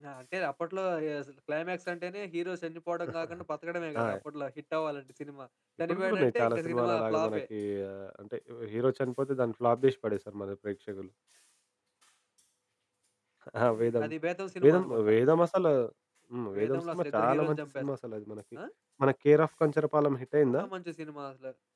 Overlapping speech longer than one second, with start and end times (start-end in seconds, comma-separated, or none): 5.9-7.4, 16.5-17.8